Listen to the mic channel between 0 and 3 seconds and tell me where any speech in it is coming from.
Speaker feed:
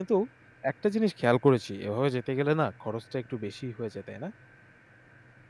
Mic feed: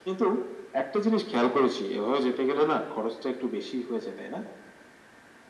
echo only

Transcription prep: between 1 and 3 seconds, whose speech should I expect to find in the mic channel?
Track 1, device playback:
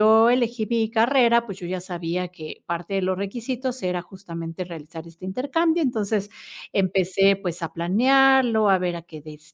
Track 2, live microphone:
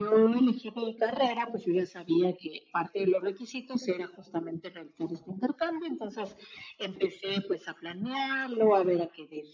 echo only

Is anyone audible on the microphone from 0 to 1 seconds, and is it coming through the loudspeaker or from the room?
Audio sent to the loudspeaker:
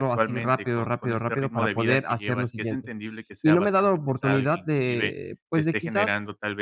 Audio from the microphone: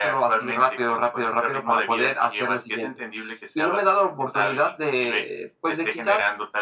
echo only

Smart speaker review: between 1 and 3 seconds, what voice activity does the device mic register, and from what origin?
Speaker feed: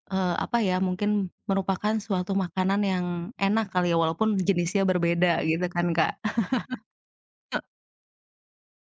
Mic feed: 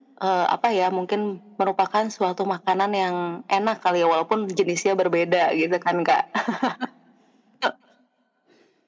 echo only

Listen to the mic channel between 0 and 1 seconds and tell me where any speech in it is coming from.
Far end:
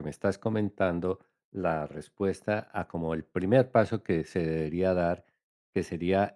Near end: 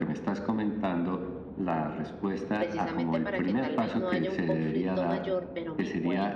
echo only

